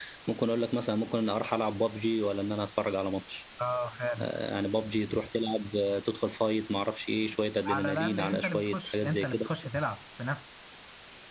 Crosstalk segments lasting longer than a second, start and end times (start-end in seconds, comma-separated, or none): 7.7-9.4